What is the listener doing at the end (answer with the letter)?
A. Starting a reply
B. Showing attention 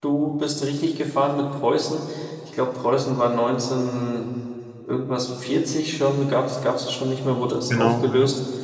B